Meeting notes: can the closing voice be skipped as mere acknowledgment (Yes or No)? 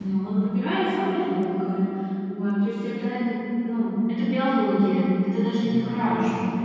Yes